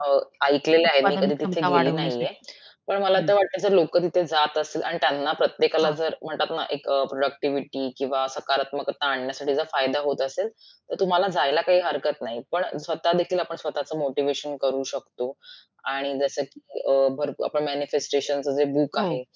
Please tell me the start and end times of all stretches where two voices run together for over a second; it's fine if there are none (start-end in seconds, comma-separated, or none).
1.0-2.3